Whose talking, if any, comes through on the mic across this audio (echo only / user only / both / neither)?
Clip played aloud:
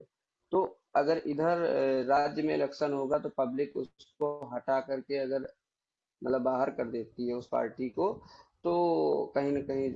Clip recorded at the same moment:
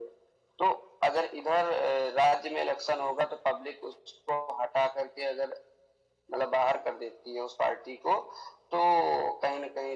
echo only